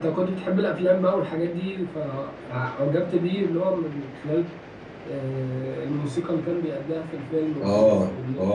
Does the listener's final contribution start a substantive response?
Yes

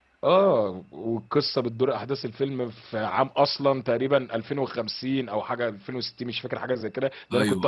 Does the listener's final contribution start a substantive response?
No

